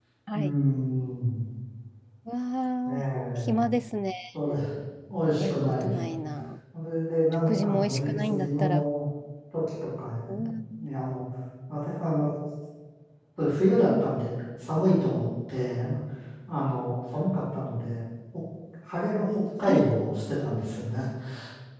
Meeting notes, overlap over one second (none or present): present